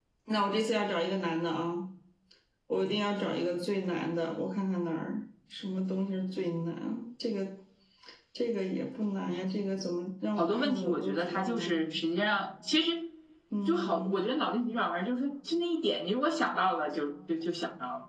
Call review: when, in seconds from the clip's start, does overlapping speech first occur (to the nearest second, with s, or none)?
10 s